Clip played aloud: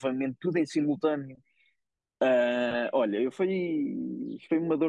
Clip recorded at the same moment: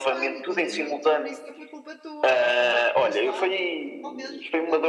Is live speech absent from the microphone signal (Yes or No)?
No